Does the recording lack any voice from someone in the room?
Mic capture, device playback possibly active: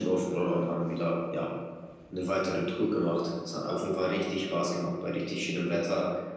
Yes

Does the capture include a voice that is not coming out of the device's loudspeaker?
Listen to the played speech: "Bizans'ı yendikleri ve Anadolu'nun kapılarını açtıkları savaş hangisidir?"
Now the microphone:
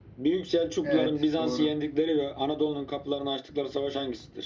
Yes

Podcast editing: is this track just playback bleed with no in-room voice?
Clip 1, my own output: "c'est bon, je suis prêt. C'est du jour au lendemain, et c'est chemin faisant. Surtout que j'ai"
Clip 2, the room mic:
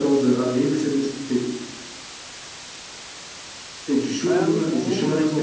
No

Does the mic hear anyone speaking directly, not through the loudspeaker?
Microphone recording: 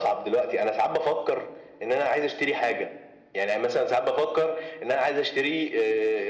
No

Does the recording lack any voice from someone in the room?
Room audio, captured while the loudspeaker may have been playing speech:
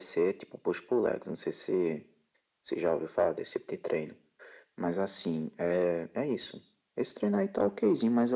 Yes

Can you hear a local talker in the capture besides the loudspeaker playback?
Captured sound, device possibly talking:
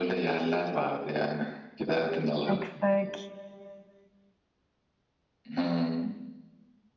Yes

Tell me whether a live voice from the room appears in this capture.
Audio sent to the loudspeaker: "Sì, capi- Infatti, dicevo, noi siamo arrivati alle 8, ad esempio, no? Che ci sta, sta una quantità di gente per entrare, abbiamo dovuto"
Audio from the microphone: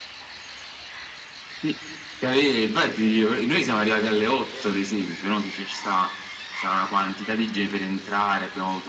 No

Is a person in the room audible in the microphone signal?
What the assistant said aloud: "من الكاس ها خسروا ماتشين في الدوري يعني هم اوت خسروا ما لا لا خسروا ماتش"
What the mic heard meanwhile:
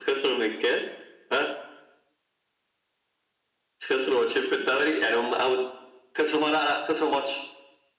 No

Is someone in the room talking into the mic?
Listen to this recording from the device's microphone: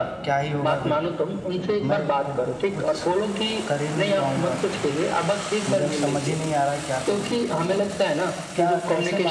Yes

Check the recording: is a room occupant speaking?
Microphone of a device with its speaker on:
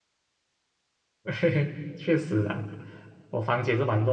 Yes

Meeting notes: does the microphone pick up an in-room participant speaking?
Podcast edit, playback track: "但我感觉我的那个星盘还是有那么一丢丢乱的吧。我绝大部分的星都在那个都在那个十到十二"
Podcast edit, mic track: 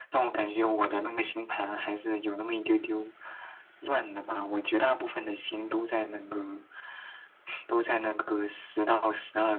No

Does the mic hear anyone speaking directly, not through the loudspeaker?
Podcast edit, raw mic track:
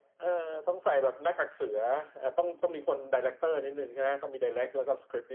No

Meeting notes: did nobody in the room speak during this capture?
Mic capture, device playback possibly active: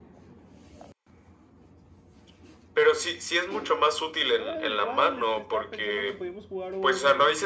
No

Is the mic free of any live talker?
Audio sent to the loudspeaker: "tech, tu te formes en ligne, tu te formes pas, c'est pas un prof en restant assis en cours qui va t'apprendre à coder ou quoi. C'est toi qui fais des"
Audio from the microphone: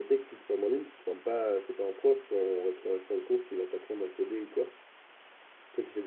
Yes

